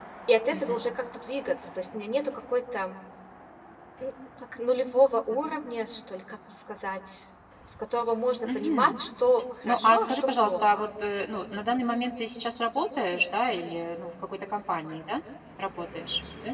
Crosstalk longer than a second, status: present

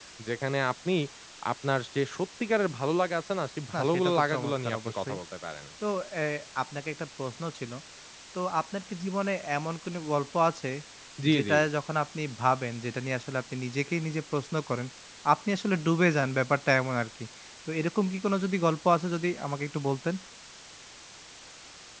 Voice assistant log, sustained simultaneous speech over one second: present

